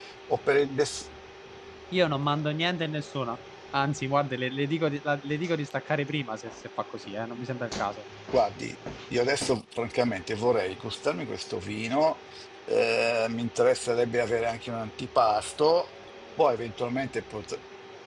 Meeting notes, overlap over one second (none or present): none